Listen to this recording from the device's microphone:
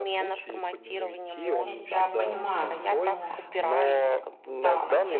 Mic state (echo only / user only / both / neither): both